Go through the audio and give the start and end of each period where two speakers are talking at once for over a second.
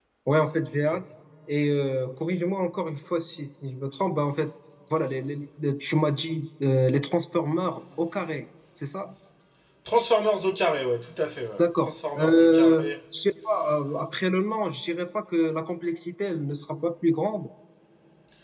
11.6-12.9

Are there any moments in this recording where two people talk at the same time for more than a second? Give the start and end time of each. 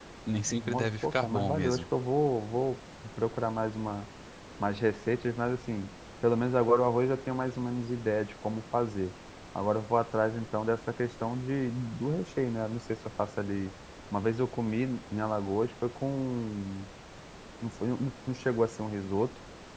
0.6-1.9

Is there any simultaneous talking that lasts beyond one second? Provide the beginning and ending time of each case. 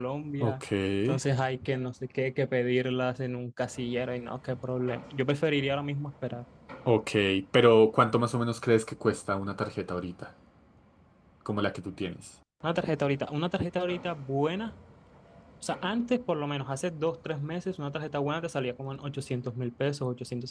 none

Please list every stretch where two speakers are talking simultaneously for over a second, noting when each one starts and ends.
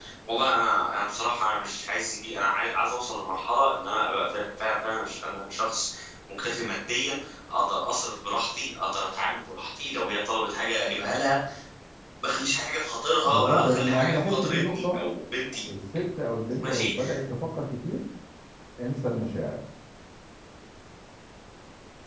13.2-15.0

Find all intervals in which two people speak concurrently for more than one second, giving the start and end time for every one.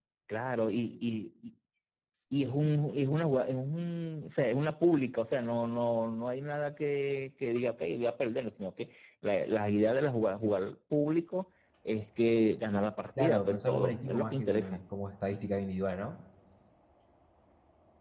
13.2-14.8

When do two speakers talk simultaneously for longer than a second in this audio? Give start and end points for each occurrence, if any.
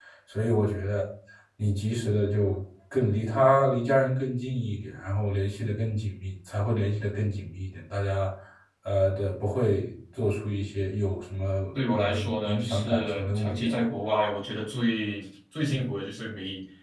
11.9-13.8

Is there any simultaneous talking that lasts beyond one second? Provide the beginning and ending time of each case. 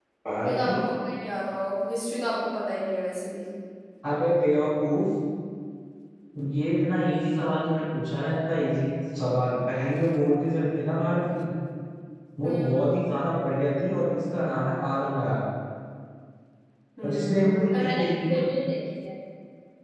17.0-18.4

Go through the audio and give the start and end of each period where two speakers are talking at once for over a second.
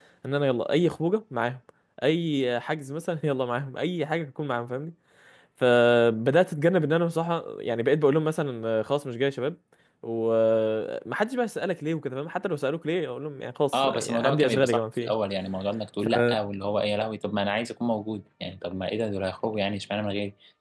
13.7-15.1

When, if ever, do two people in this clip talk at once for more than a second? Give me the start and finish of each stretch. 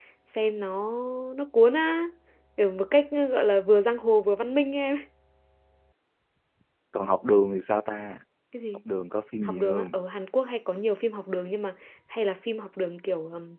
none

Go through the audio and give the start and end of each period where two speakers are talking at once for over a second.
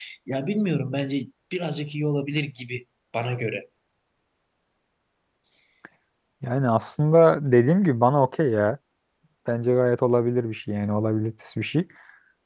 none

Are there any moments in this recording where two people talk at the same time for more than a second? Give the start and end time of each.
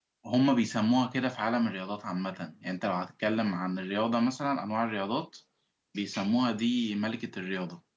none

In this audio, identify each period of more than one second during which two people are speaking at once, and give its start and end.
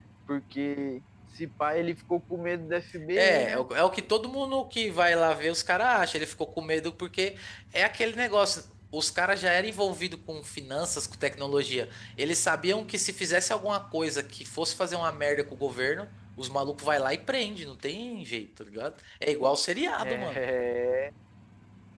none

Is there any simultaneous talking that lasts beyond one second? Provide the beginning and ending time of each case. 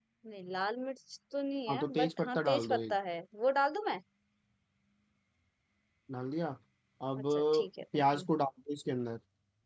1.7-2.9

